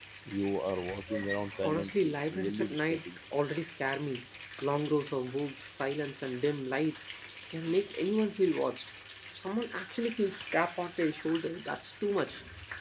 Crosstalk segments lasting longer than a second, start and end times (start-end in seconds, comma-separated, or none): 1.6-3.0